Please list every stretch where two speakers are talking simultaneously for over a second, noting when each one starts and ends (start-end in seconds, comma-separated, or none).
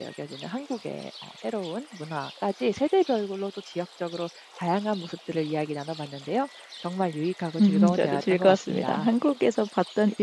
7.6-9.1